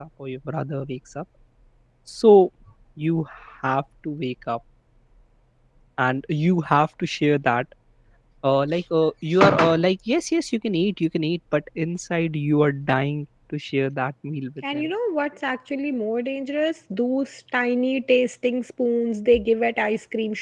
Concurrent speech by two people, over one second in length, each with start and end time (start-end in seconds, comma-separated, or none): none